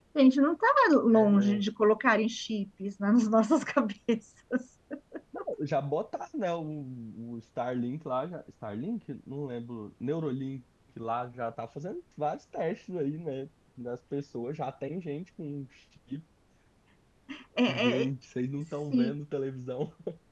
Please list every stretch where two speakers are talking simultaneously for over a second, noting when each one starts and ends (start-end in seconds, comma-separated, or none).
none